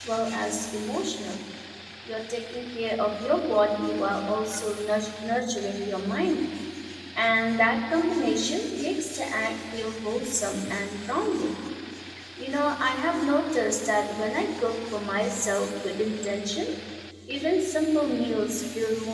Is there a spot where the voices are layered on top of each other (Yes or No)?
No